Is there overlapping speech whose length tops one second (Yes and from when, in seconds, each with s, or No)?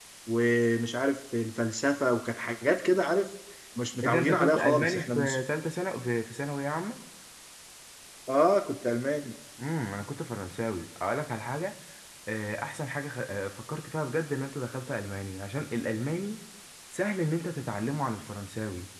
Yes, from 4.0 s